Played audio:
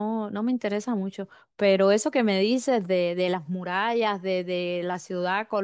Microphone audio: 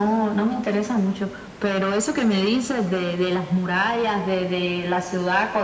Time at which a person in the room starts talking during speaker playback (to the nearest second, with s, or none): none